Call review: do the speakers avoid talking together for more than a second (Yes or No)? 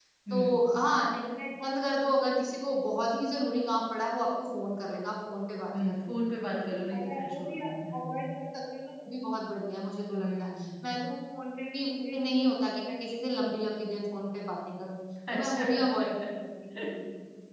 No